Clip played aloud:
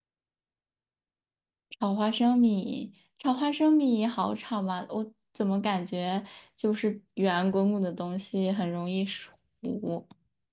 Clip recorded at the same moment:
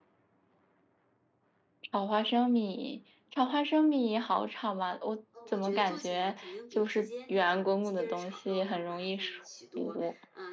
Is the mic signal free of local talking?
No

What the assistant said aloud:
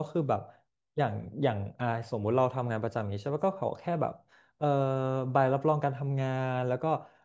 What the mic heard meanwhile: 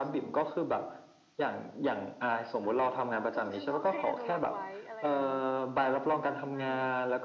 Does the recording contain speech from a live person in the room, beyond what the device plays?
Yes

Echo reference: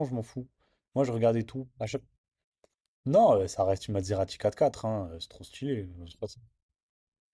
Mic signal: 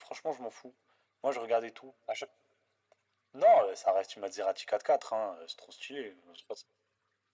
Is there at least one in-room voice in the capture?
No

